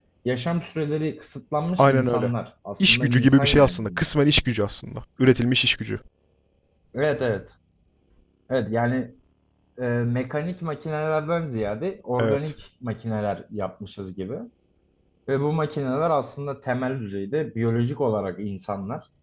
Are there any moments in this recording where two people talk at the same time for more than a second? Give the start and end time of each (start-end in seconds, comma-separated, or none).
2.9-4.1